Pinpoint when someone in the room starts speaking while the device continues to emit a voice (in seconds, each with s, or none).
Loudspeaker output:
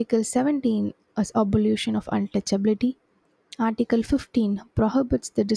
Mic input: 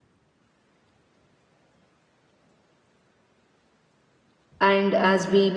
4.6 s